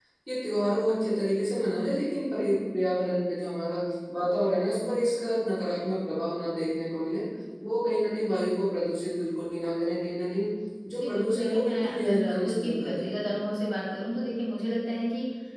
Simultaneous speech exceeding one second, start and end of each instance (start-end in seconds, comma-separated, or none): 11.0-13.1